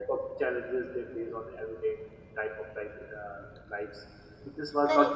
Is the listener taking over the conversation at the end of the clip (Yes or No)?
Yes